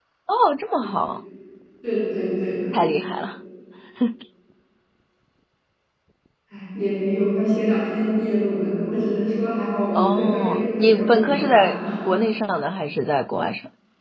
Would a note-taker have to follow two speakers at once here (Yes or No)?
Yes